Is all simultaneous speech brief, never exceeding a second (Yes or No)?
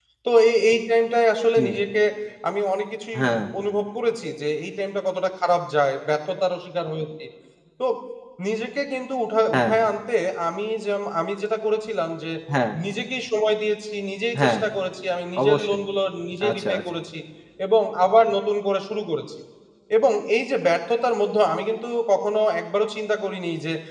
Yes